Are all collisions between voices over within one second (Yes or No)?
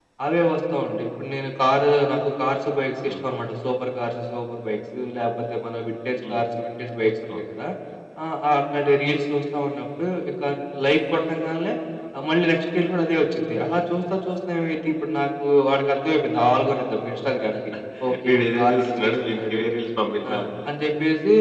No